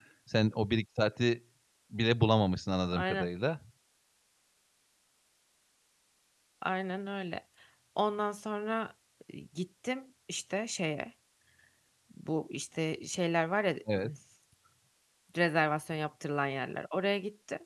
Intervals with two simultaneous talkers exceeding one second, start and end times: none

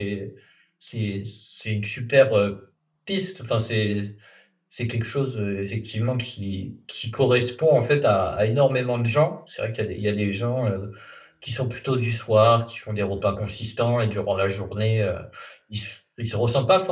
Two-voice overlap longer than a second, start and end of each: none

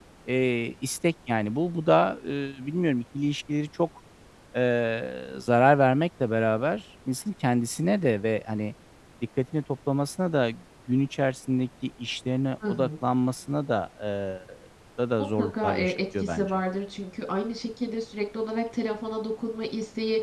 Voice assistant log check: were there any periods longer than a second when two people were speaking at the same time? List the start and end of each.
15.4-16.6

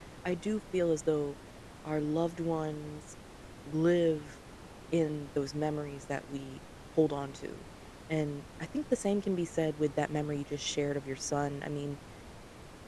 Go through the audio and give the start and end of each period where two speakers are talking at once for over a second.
none

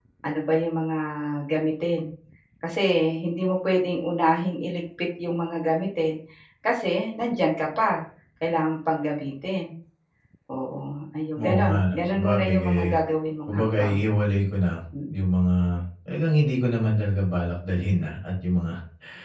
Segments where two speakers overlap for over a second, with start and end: 11.4-12.8

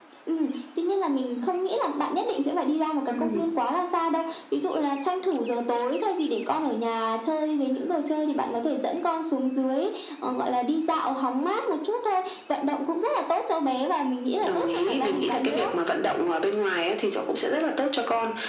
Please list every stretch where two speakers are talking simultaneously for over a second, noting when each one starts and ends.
14.4-15.7

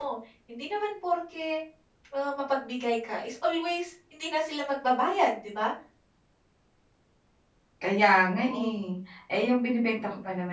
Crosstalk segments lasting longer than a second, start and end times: none

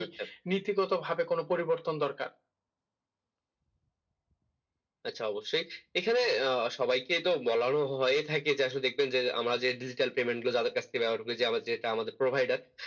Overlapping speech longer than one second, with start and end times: none

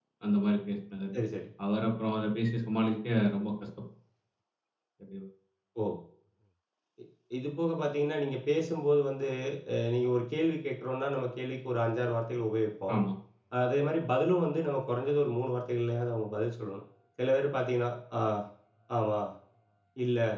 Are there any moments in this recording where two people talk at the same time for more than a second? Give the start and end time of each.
none

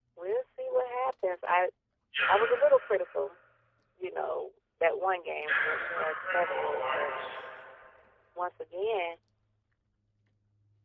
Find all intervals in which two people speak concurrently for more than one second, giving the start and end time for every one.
5.5-7.5

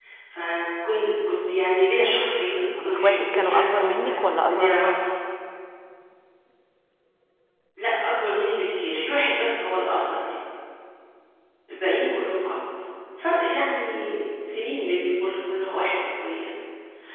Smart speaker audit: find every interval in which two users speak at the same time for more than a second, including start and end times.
2.8-4.9

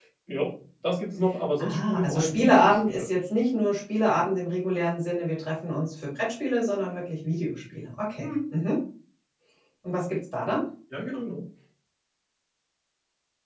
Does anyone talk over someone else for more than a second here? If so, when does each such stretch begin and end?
1.6-3.1

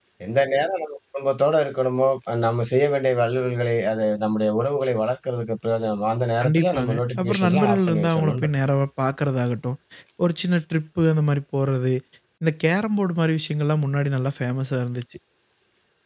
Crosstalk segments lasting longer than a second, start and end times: 6.4-8.5

